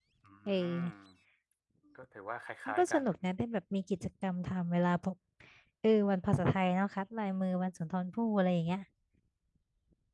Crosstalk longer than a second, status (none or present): none